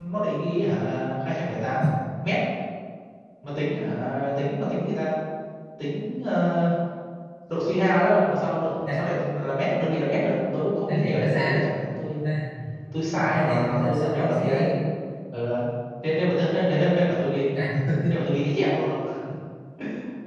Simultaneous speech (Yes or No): Yes